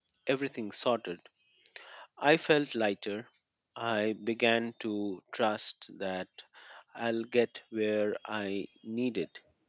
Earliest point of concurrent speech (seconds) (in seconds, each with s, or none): none